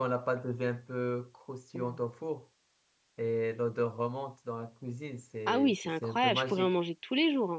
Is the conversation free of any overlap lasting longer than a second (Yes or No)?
No